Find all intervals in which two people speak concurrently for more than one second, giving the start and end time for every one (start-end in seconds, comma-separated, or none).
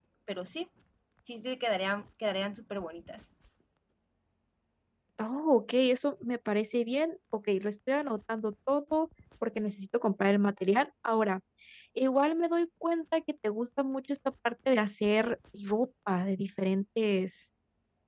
none